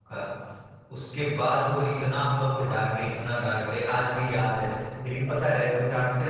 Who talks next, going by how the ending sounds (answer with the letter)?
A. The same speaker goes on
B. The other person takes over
A